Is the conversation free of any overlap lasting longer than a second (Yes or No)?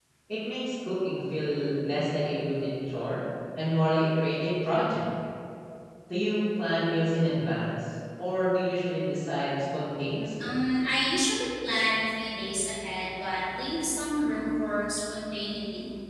Yes